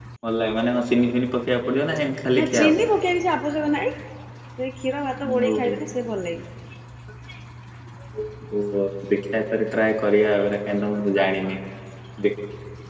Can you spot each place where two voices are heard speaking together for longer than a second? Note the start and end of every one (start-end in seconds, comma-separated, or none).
none